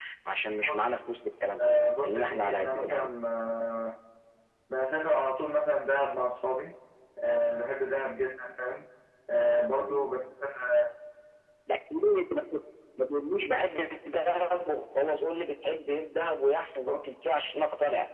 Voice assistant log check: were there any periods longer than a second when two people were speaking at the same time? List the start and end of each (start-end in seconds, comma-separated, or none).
1.6-3.1